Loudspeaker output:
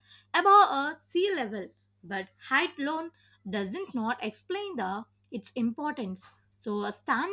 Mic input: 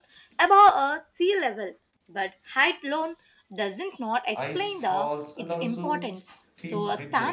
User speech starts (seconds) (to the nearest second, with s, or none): 4 s